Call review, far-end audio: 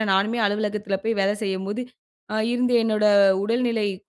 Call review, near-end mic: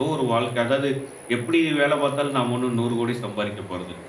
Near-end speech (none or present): present